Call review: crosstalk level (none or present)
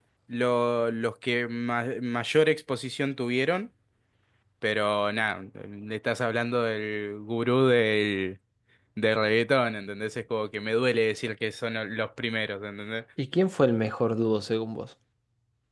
none